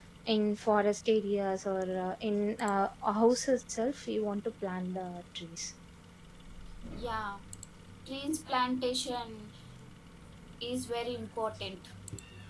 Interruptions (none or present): none